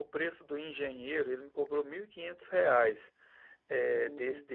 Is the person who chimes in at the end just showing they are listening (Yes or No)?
Yes